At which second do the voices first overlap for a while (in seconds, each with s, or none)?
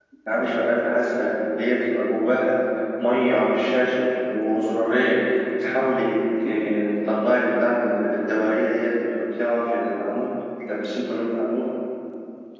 none